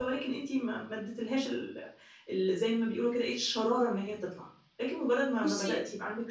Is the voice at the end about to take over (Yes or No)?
No